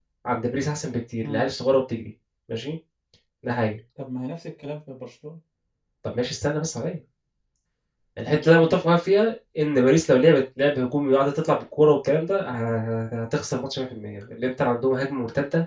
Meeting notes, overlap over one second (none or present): none